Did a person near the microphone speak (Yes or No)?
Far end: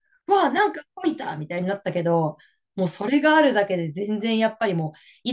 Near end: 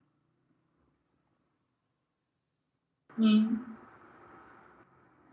Yes